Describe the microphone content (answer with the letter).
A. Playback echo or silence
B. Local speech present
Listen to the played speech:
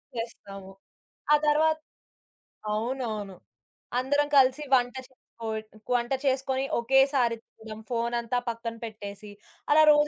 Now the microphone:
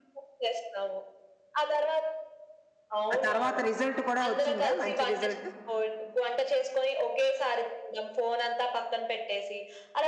B